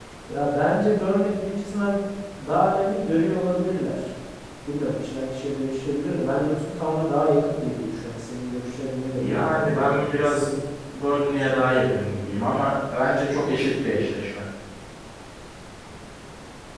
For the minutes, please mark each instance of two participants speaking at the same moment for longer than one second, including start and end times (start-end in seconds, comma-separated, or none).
9.1-10.5